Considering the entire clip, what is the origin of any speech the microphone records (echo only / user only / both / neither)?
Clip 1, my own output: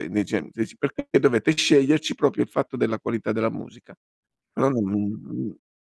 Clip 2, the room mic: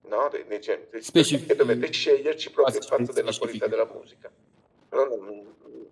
both